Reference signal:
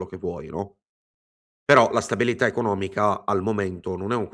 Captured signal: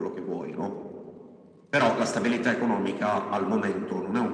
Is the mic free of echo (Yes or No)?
No